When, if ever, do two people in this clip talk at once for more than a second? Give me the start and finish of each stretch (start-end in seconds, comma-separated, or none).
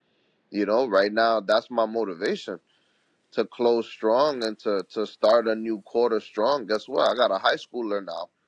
none